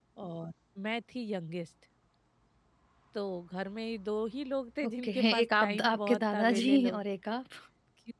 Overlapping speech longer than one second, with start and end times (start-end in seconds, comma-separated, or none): 4.8-7.0